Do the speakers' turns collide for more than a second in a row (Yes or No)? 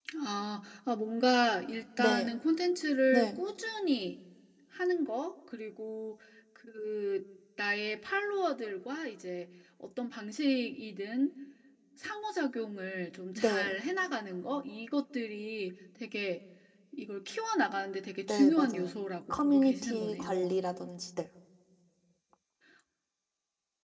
Yes